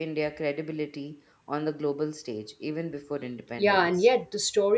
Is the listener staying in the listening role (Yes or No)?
No